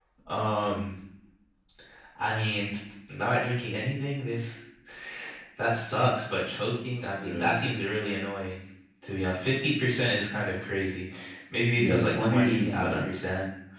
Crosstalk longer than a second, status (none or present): present